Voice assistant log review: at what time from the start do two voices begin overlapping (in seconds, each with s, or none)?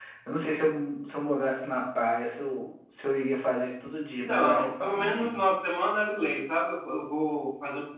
4.2 s